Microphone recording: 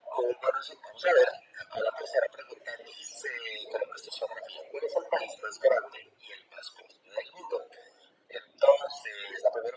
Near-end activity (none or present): none